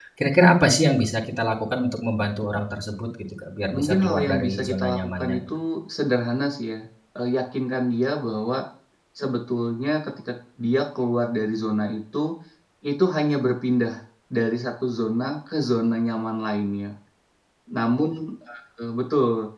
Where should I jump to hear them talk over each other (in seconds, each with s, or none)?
3.7 s